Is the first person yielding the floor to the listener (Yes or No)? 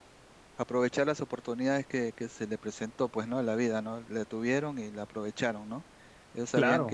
No